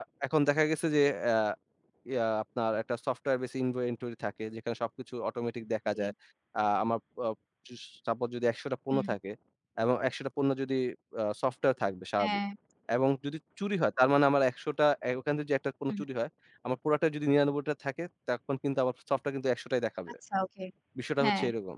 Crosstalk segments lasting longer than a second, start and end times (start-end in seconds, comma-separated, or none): none